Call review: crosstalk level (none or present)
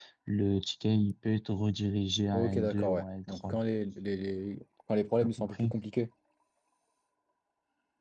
present